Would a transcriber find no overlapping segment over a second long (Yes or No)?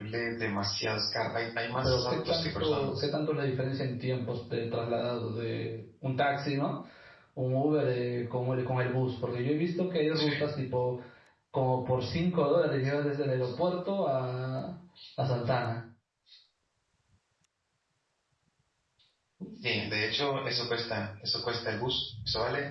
No